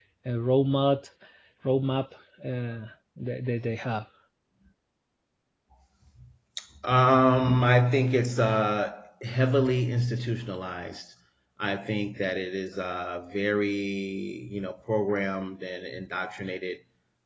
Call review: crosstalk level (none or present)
none